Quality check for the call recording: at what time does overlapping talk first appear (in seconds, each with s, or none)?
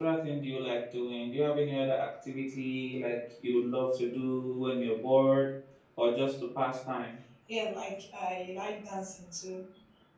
none